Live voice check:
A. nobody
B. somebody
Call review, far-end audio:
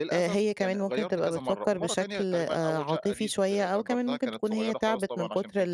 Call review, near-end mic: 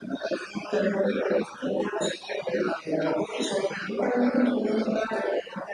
A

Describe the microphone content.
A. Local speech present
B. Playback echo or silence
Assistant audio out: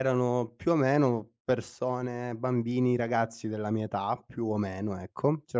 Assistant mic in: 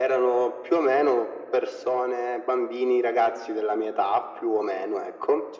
B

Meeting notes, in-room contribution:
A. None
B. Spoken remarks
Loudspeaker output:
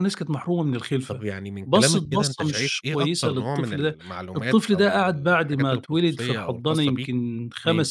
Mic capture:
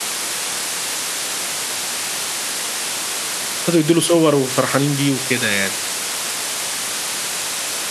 B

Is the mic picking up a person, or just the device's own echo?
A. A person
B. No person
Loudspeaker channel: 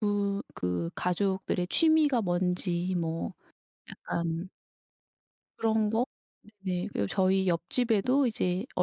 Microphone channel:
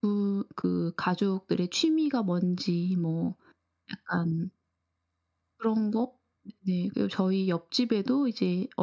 B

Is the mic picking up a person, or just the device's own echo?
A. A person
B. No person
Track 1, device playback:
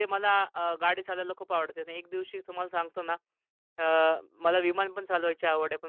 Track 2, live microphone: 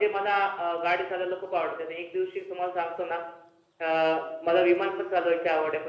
B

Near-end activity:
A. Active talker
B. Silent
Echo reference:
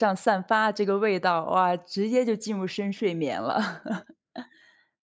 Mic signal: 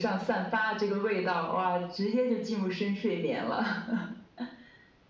B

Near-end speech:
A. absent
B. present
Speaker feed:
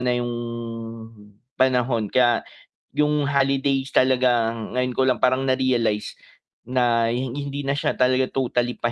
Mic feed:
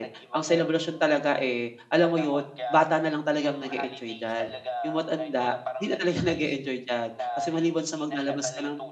B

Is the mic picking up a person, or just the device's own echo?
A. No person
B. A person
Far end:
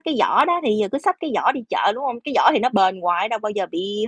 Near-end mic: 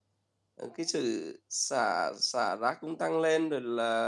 B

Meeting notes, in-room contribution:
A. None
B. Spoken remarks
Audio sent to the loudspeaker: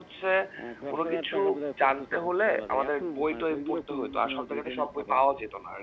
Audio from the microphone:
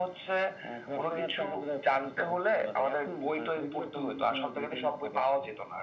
A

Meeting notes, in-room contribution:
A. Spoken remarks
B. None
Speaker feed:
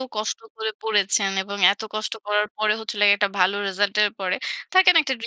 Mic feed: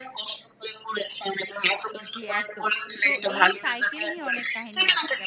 A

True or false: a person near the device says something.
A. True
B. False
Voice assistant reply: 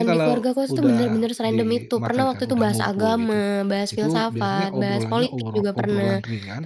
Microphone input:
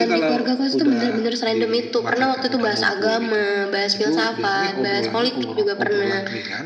B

